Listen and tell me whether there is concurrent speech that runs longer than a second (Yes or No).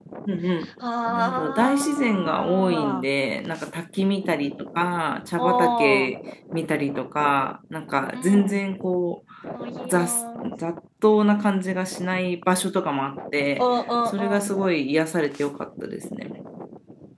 Yes